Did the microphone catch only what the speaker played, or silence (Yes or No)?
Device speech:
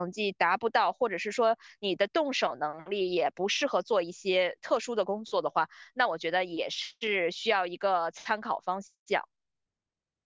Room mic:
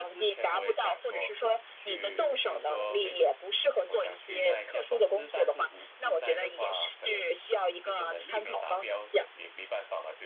No